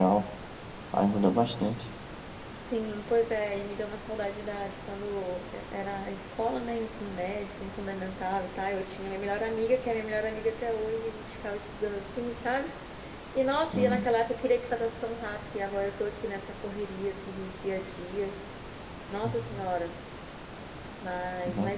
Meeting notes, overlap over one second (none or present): none